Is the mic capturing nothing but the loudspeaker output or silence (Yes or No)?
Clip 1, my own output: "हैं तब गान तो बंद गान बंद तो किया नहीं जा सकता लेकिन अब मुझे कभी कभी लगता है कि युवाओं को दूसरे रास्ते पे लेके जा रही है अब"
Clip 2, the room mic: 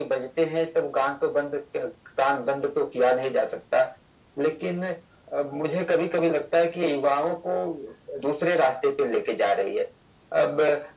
Yes